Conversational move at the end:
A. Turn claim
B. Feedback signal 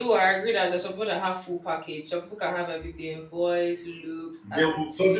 A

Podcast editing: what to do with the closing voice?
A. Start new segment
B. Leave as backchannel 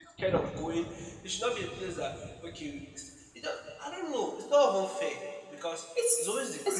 B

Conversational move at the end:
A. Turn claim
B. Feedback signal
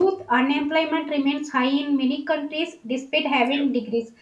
B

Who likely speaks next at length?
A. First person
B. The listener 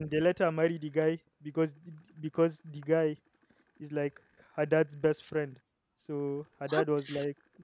A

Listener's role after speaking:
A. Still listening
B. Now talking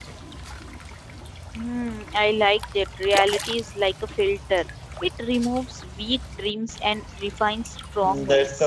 B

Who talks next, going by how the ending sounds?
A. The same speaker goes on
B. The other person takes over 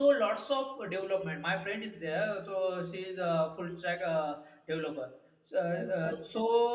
A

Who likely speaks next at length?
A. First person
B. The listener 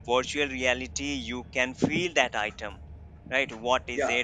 A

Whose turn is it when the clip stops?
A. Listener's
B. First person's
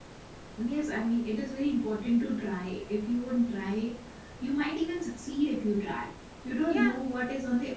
B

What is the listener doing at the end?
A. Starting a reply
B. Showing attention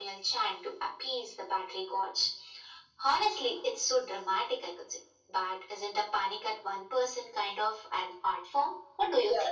A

